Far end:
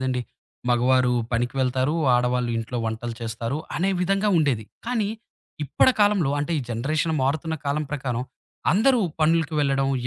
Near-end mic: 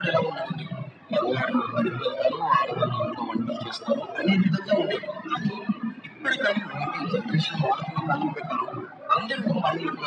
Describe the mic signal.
echo only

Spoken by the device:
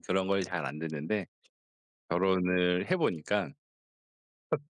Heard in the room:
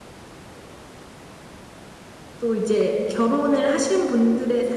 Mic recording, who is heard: user only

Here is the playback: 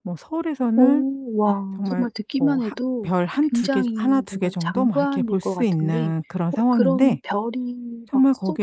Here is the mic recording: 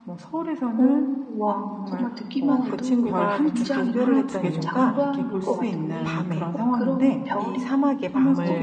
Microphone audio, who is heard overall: both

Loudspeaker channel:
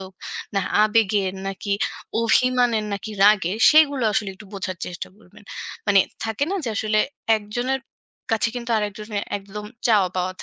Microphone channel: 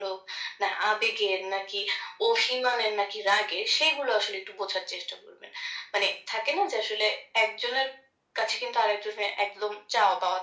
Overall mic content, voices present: echo only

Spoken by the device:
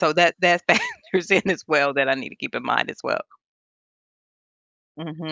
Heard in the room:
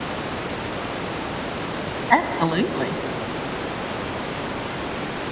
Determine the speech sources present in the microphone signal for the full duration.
user only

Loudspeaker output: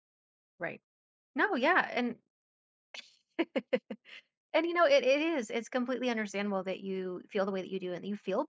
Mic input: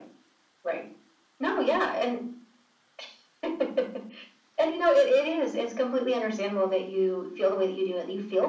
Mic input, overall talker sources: echo only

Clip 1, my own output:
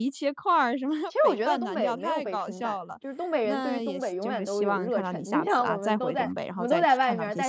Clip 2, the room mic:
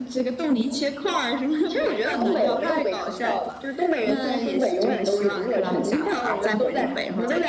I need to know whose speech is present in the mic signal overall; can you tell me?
echo only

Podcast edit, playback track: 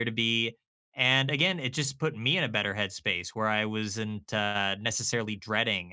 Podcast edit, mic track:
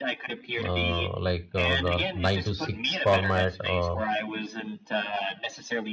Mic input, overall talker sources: both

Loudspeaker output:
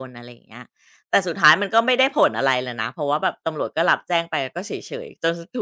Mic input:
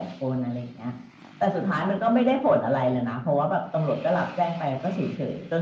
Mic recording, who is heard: echo only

